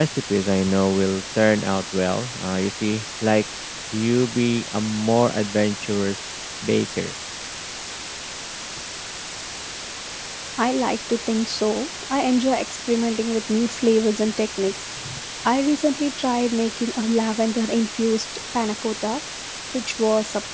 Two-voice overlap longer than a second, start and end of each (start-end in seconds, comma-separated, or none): none